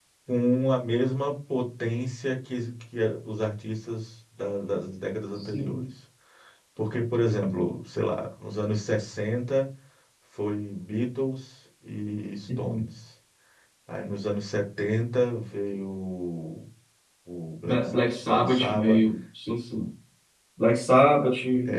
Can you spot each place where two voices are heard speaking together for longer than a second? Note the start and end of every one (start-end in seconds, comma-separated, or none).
17.6-19.0